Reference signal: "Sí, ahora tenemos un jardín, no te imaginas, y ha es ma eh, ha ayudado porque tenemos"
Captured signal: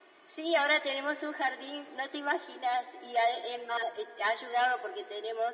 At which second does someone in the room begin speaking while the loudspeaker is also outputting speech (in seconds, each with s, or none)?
none